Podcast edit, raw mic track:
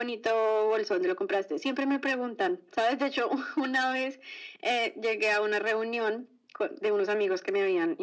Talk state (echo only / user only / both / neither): echo only